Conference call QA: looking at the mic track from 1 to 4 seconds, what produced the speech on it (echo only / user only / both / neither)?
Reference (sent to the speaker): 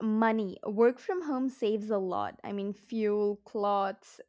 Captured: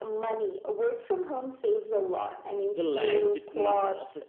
both